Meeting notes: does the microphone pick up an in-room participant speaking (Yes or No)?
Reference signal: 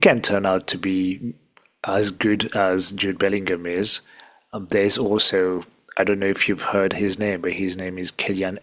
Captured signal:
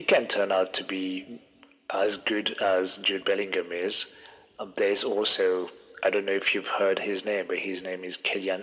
No